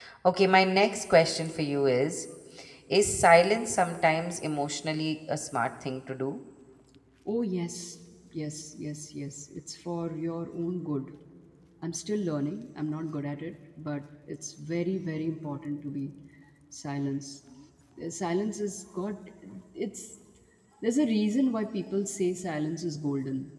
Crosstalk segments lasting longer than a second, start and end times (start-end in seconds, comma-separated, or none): none